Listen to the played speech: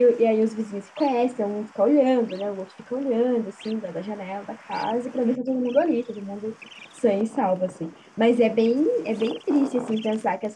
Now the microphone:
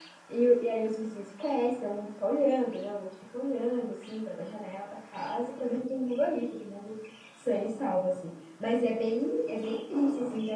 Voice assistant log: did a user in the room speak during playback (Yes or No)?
No